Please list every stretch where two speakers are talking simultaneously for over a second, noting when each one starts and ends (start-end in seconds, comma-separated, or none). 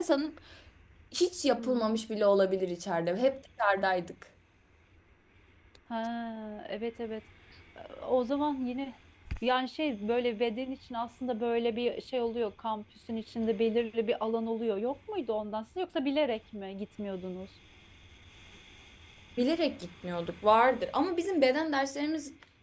none